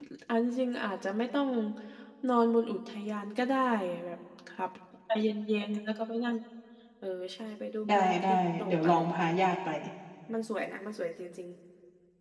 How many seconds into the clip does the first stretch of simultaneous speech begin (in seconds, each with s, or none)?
7.8 s